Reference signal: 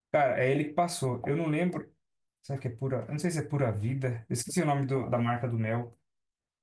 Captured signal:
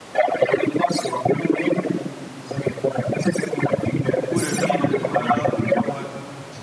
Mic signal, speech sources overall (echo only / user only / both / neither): both